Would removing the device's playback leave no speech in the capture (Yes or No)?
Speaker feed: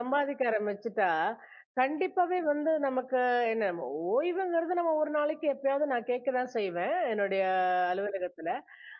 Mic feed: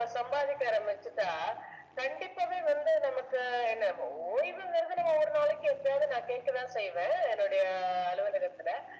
Yes